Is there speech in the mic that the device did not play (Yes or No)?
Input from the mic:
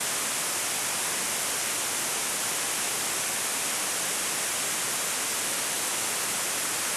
No